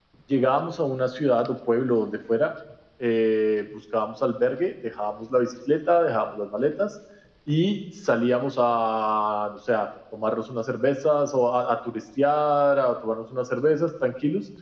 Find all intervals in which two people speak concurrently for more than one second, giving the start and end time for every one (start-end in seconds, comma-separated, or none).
none